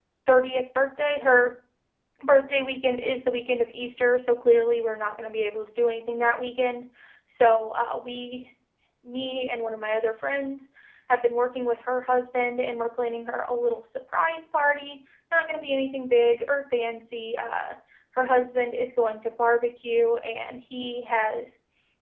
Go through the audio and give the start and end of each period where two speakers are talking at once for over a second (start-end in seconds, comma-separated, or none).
none